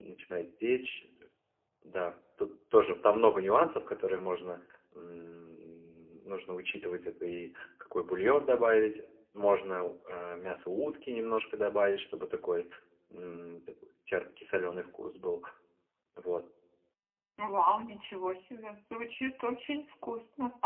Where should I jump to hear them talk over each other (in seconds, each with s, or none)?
none